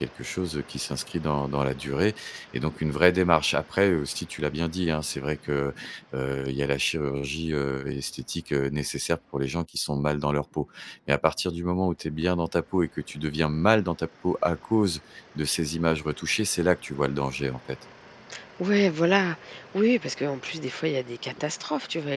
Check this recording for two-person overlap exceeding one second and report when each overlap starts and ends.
none

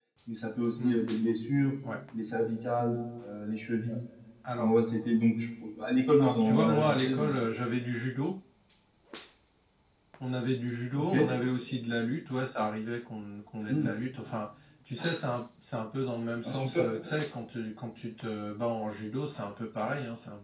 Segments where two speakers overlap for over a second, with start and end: 6.2-7.4

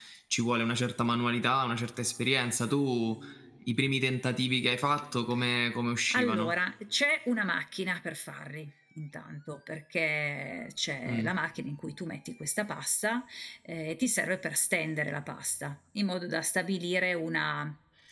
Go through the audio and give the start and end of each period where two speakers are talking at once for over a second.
none

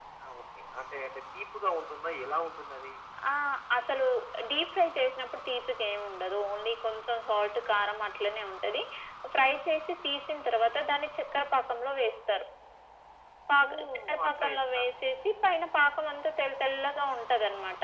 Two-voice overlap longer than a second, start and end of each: 13.7-14.9

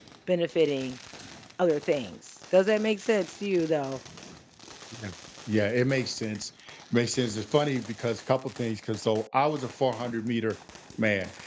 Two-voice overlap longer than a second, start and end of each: none

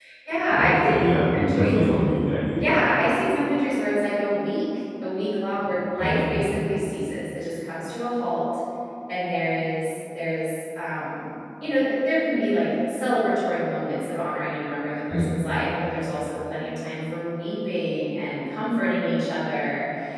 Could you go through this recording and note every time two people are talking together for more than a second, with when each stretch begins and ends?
none

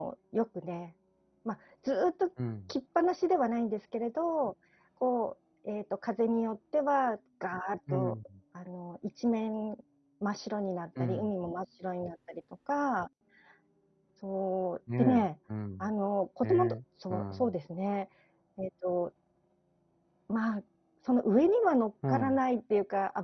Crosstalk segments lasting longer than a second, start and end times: none

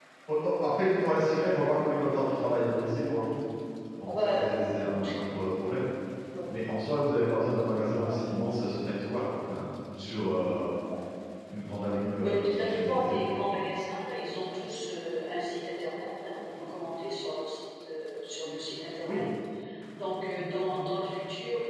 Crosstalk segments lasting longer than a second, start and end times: 11.8-13.1

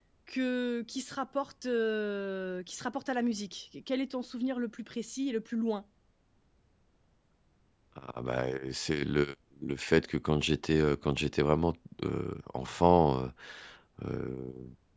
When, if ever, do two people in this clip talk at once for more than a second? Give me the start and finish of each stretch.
none

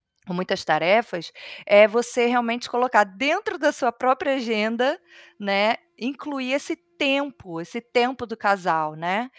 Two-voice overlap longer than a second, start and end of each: none

